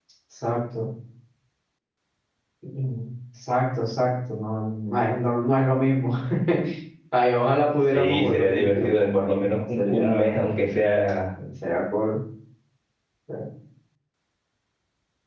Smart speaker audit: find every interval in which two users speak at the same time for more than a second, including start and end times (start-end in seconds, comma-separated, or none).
7.9-10.3